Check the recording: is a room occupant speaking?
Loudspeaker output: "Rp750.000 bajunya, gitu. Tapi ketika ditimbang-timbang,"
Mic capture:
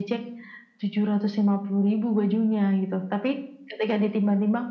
No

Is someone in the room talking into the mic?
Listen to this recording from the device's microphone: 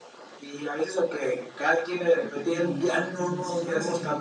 Yes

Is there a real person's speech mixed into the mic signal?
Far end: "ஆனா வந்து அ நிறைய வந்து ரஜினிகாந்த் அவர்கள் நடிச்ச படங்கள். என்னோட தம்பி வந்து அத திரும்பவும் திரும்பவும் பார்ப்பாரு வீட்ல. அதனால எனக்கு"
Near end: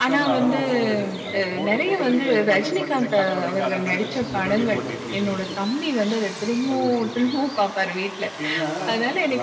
Yes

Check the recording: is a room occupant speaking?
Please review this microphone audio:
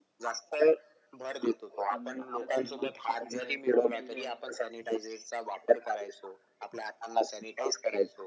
Yes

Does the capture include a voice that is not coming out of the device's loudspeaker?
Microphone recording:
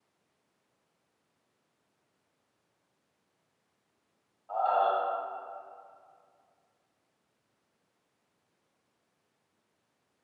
Yes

